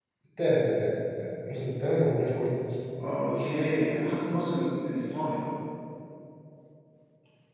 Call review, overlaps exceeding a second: none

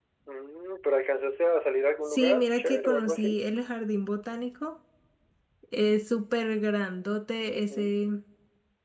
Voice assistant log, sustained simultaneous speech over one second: present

